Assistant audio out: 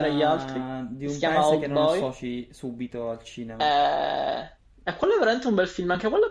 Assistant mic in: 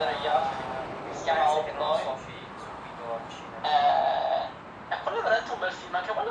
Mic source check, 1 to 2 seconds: echo only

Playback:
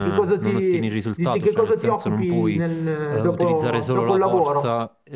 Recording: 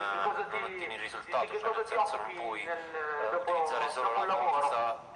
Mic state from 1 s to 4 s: echo only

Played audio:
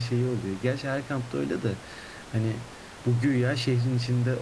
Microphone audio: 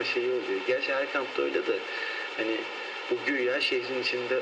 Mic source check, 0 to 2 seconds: echo only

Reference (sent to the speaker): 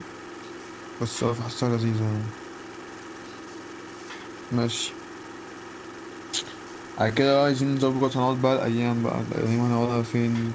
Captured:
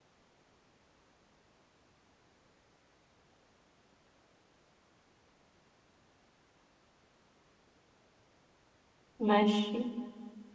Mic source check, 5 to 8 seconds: neither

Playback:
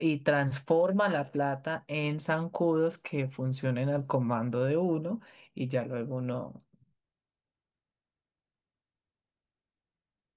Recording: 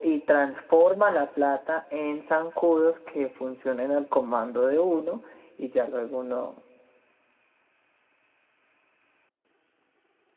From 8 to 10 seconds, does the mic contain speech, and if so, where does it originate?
neither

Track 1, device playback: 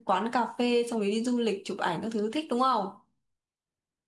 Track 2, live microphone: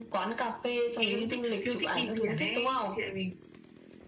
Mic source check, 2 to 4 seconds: both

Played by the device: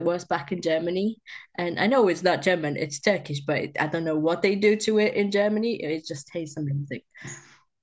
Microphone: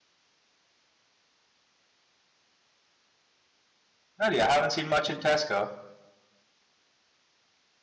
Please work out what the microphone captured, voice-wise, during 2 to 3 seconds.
neither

